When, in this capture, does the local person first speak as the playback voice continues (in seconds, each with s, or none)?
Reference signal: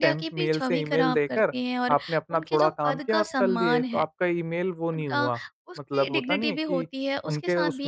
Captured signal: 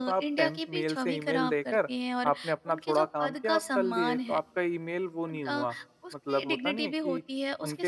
none